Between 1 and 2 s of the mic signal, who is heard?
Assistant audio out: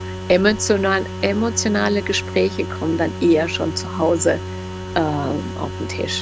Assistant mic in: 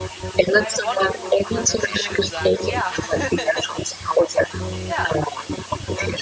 both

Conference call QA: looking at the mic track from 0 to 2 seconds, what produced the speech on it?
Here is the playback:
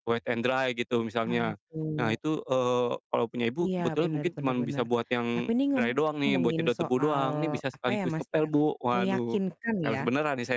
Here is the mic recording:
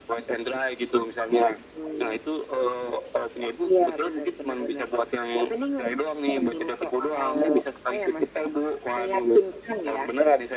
echo only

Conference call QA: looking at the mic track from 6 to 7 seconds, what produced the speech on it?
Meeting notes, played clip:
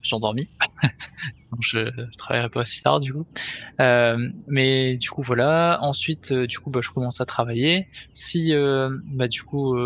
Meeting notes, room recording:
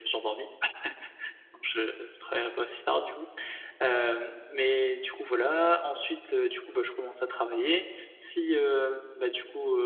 echo only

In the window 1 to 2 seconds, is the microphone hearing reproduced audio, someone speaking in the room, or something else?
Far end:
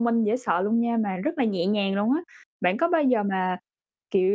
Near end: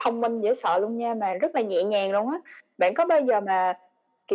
echo only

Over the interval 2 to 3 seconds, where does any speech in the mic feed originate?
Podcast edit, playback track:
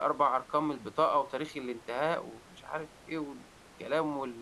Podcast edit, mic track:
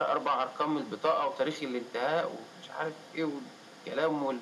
echo only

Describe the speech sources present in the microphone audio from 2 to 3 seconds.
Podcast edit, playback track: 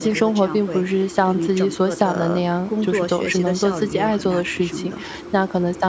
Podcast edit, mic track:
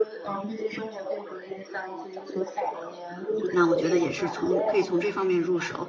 echo only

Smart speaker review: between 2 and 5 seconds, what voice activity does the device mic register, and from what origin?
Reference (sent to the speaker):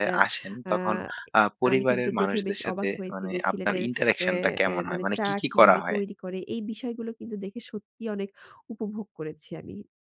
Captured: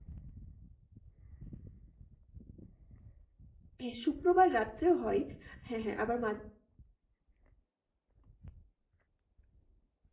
user only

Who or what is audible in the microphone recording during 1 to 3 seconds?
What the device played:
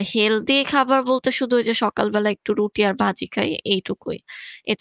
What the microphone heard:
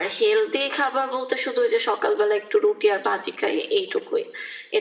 echo only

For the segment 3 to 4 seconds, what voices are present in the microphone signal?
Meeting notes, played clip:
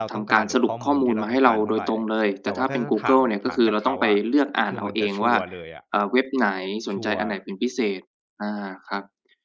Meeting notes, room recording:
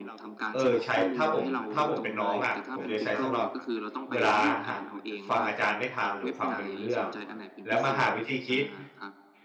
both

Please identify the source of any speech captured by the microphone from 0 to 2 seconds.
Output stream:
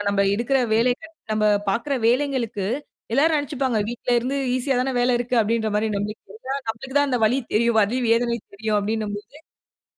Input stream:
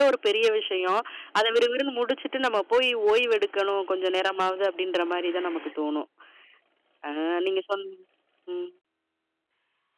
user only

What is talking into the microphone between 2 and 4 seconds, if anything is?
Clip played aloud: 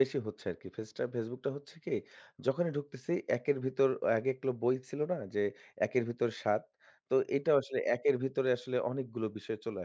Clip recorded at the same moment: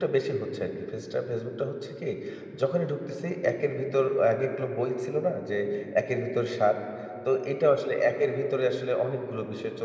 echo only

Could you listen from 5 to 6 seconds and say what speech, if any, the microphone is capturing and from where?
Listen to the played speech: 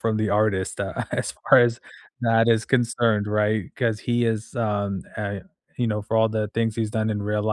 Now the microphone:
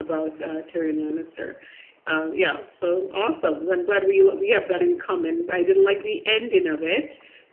user only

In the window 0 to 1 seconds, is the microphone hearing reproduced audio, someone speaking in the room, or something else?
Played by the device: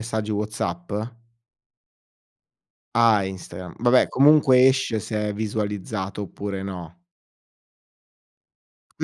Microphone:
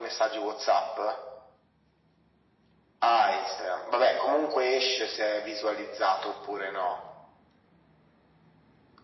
echo only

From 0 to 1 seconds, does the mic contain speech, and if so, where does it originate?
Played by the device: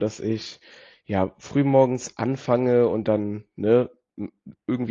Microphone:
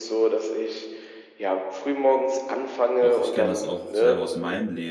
echo only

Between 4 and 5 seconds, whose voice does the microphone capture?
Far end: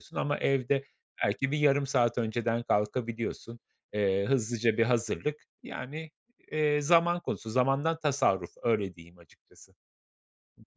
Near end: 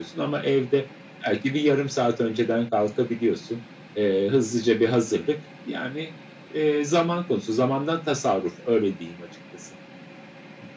echo only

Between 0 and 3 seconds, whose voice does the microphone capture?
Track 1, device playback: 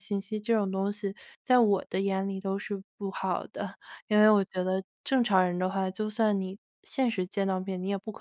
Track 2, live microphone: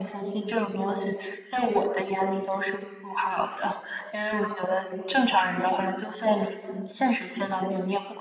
echo only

